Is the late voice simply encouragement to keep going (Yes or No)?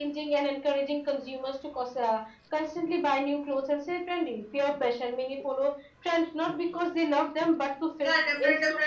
No